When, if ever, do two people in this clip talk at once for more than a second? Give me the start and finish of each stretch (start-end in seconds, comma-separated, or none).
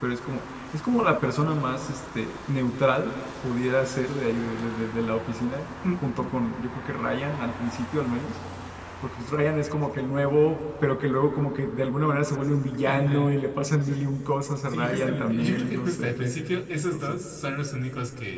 14.7-16.3